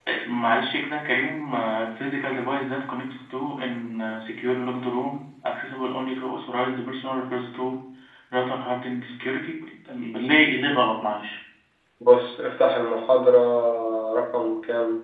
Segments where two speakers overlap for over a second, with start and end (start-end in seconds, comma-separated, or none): none